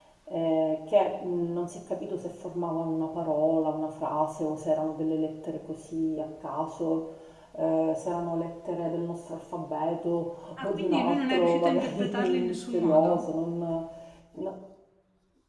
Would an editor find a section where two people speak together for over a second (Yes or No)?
Yes